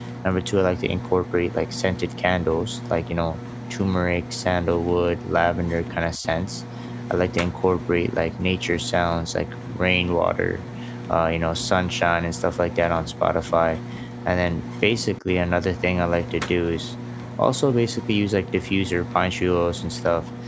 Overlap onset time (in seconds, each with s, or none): none